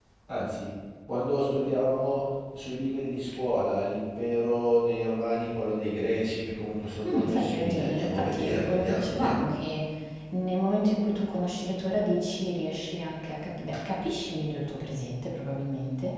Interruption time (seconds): 7 s

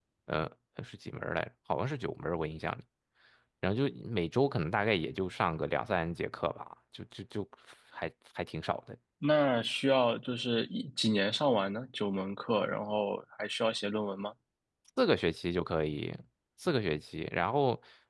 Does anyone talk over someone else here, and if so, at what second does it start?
none

